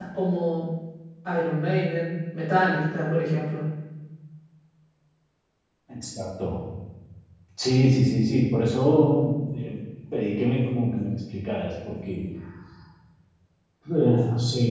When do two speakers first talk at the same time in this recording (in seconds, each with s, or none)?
none